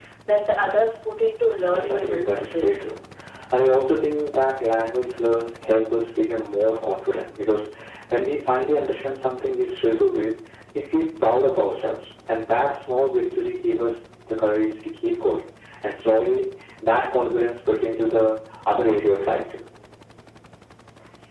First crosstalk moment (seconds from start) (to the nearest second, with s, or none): 2 s